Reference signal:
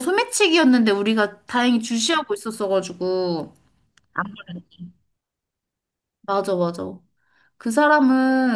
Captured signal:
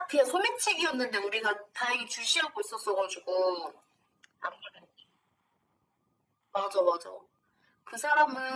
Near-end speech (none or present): none